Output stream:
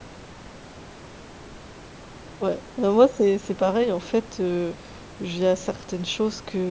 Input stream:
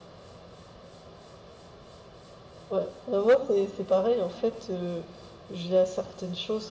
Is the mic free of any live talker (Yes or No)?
Yes